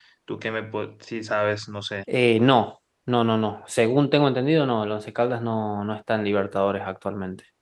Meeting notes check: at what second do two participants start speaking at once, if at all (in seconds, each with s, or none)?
none